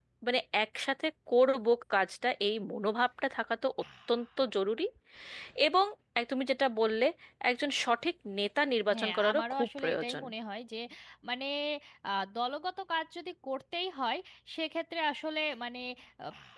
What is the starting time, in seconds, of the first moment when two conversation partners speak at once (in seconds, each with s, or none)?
8.9 s